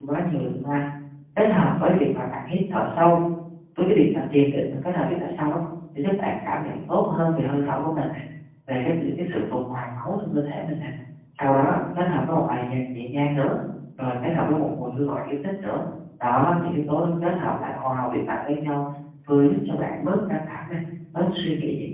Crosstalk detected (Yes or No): No